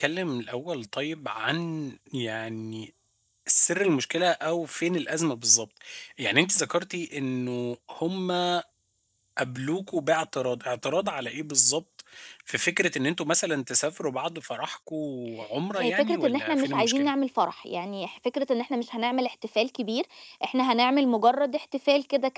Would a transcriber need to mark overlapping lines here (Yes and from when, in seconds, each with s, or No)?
Yes, from 15.8 s